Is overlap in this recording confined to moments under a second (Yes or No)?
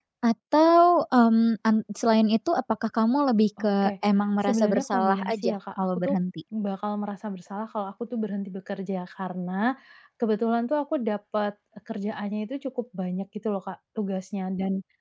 No